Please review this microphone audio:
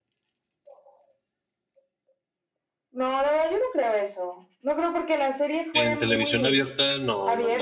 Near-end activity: present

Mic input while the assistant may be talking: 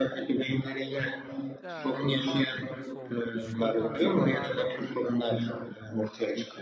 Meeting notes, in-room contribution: present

